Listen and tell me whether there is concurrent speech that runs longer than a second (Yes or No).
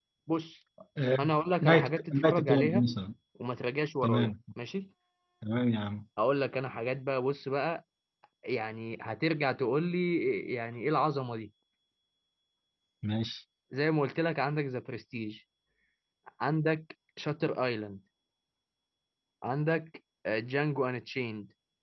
Yes